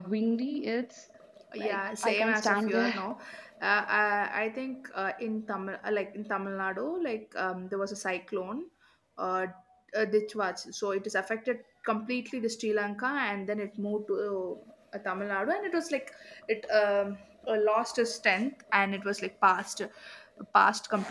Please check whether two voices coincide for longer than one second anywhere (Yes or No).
Yes